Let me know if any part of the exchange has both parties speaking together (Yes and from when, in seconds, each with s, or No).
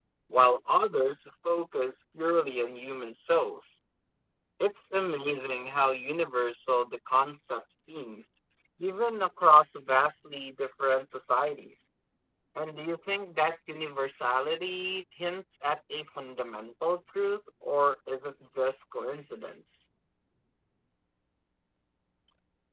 No